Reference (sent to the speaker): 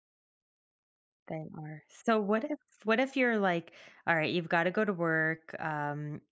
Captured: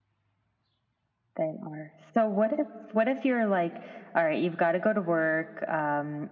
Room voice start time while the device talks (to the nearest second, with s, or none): none